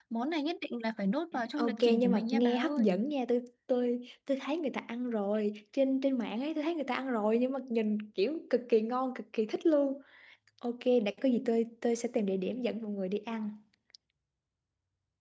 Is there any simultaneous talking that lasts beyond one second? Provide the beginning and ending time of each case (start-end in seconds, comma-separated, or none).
1.6-3.0